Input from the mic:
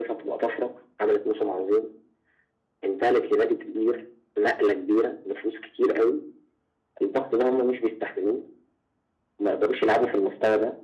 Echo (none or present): present